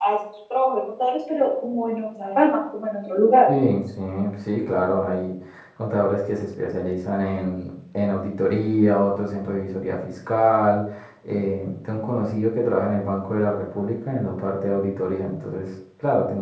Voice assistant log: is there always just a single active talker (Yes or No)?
Yes